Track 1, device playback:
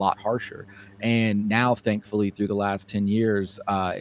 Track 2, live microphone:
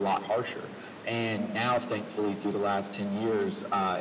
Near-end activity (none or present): none